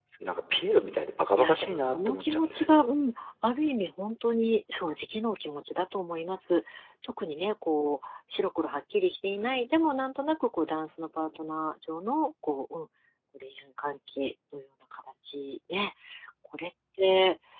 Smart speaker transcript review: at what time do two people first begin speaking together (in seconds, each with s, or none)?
1.4 s